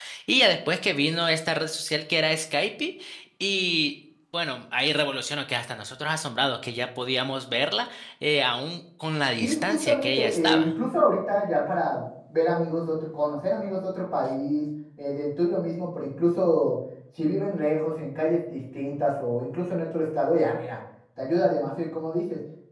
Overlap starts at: 9.4 s

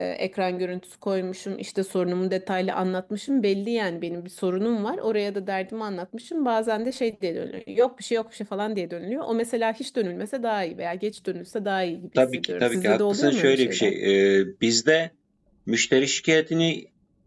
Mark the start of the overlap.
12.2 s

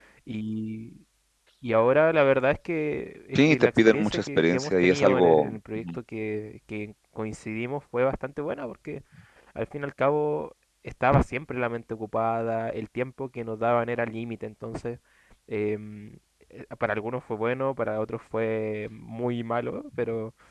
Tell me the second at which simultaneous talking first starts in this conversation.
3.4 s

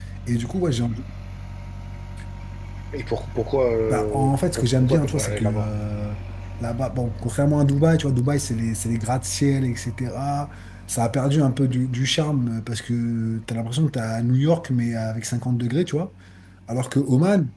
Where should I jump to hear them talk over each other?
3.9 s

